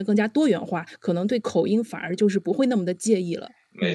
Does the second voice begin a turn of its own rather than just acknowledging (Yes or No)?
Yes